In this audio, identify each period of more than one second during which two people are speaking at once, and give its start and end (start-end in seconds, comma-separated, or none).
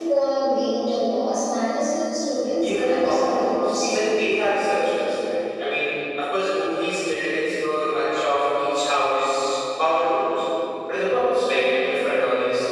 2.6-4.0